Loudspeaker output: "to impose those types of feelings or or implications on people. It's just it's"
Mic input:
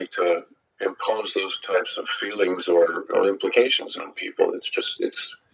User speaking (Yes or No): No